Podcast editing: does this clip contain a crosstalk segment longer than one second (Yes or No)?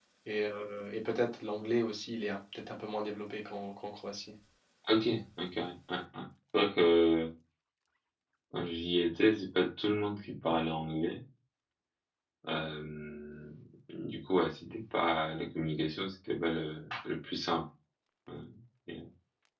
No